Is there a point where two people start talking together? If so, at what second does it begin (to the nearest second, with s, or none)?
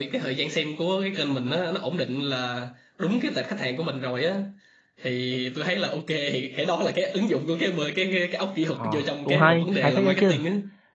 9 s